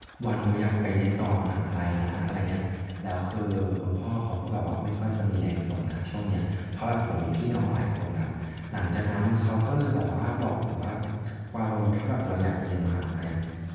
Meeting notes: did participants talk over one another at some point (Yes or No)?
No